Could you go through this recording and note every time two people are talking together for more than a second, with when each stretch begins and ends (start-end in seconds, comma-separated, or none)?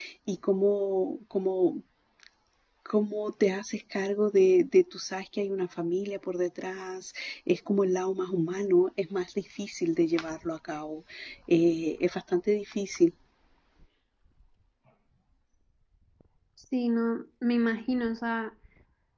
none